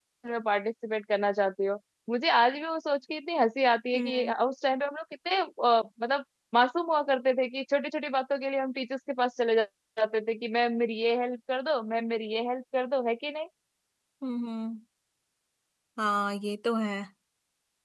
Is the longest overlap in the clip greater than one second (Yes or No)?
No